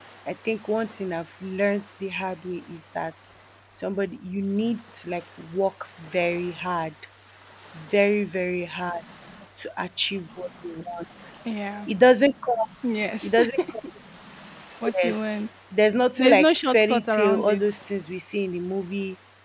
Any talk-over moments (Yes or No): Yes